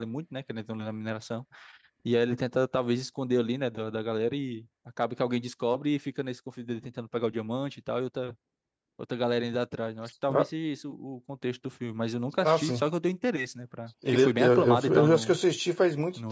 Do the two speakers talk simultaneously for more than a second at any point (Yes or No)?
Yes